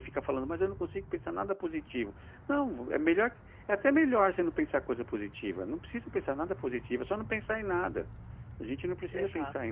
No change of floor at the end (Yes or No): Yes